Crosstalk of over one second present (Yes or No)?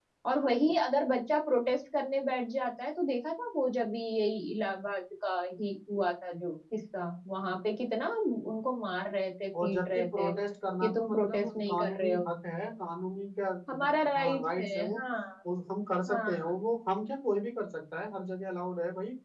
Yes